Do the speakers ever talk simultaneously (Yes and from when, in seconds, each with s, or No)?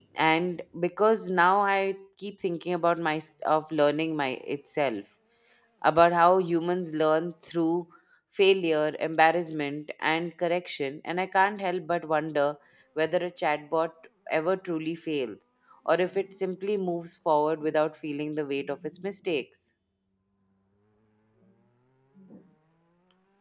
No